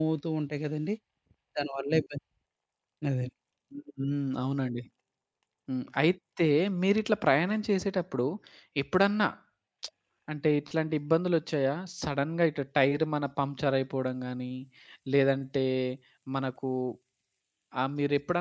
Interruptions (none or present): none